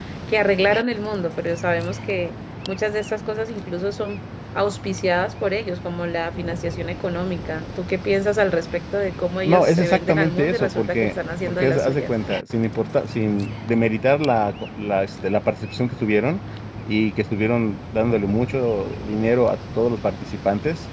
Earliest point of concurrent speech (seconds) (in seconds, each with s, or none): 9.4 s